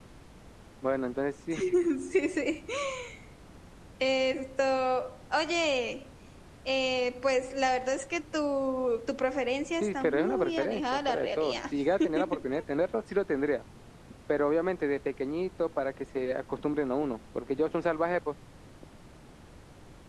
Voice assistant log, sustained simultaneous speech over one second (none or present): present